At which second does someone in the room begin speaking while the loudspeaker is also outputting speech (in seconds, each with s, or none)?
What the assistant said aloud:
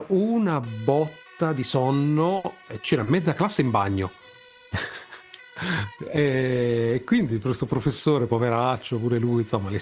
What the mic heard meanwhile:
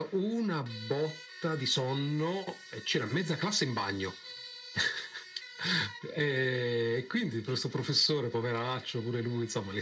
none